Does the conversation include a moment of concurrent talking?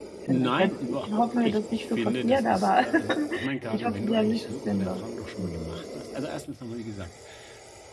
Yes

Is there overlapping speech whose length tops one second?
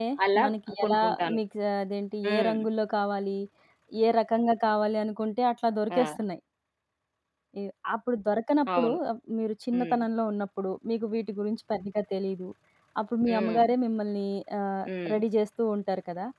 No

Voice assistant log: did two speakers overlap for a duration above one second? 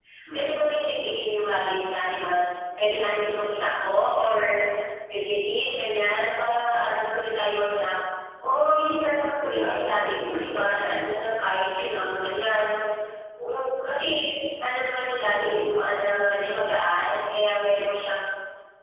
Yes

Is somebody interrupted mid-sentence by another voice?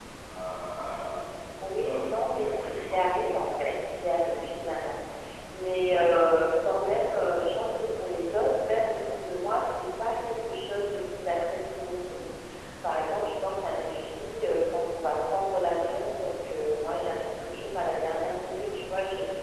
Yes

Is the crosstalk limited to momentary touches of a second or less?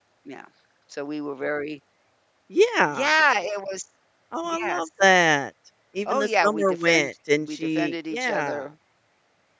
No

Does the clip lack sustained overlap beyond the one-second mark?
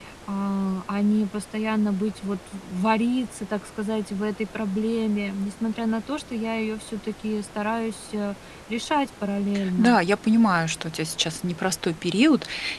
Yes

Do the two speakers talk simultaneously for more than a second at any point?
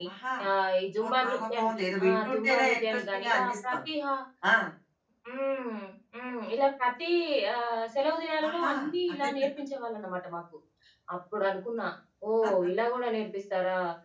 Yes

